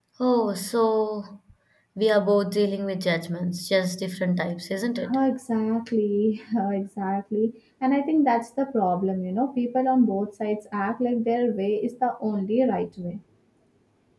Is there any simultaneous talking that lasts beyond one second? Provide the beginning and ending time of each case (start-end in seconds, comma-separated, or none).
none